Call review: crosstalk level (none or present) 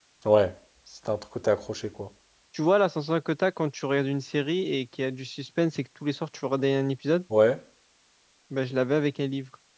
none